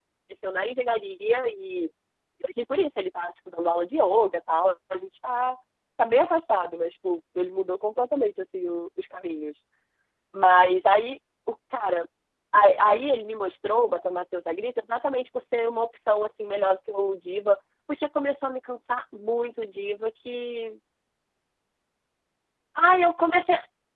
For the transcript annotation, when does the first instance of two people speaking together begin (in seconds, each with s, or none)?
none